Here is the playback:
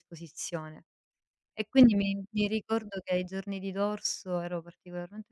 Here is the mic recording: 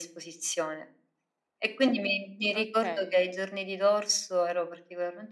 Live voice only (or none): Okay.